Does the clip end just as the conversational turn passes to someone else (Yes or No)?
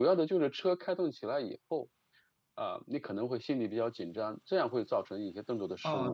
Yes